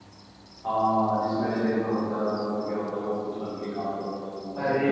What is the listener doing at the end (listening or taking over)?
taking over